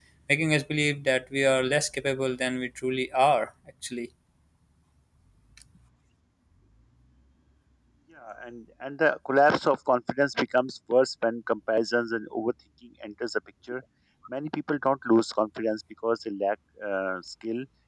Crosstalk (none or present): none